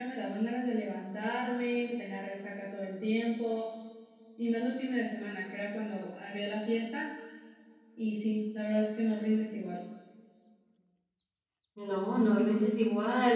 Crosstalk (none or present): none